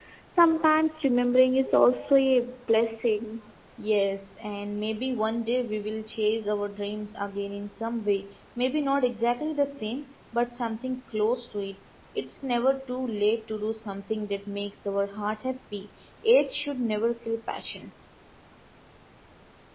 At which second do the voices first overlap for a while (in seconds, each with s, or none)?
none